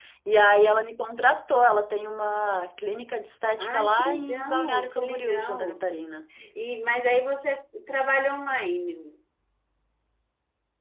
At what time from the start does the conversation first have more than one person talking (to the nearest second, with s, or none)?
4 s